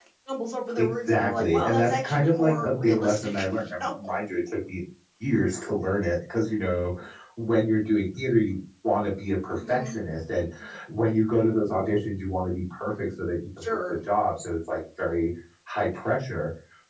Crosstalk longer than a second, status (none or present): present